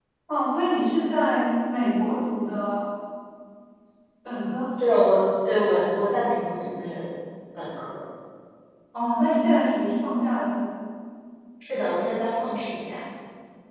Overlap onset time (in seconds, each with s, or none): none